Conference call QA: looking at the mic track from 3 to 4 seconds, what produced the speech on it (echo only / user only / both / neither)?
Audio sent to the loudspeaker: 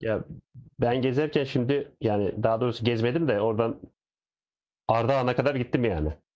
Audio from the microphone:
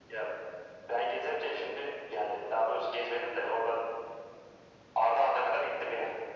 echo only